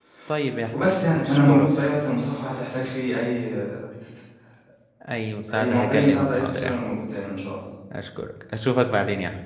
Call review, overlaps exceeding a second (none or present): present